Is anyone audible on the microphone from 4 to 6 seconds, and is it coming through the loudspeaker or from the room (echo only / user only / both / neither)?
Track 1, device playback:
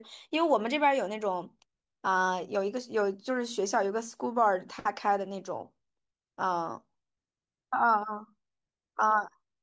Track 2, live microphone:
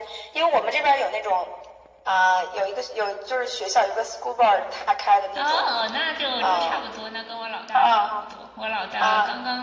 both